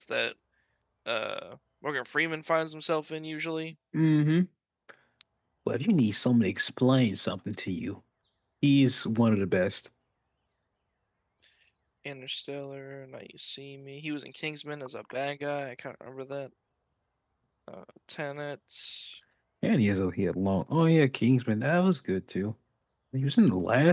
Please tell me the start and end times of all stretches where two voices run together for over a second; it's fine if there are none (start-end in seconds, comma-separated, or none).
none